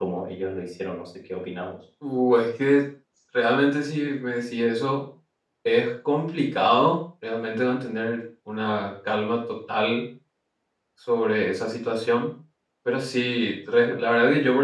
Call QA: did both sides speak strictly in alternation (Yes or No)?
Yes